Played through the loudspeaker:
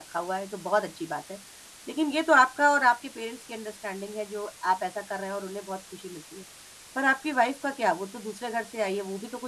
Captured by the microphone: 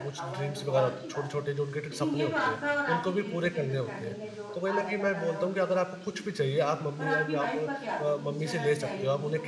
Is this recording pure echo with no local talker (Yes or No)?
No